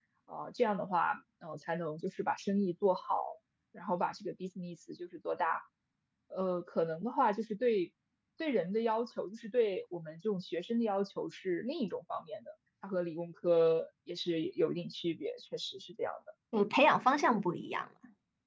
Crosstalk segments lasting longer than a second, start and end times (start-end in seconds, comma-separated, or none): none